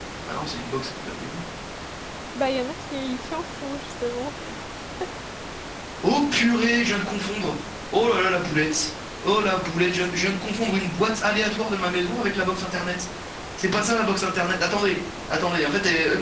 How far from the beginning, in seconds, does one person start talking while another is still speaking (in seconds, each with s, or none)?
none